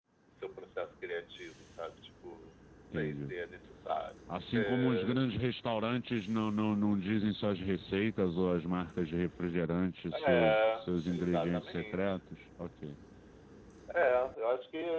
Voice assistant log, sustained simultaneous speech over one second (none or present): present